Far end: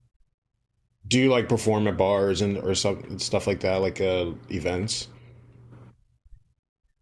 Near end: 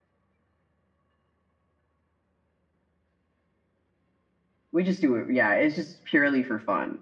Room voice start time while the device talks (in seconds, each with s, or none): 4.7 s